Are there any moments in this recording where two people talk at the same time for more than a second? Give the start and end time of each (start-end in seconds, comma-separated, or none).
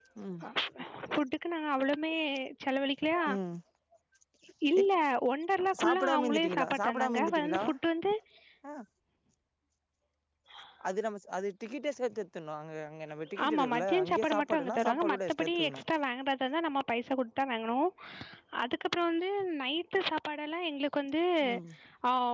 5.8-7.6, 13.4-15.8